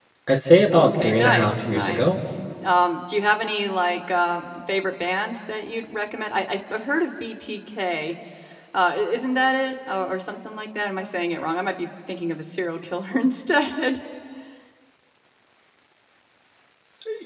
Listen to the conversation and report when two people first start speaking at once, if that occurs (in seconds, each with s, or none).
0.7 s